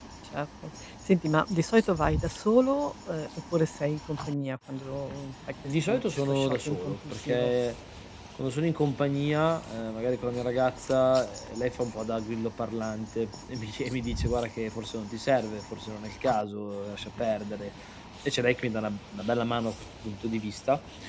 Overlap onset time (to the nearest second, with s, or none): 6 s